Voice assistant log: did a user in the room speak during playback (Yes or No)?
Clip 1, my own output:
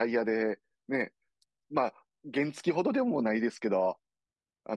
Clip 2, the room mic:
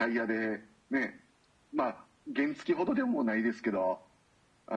No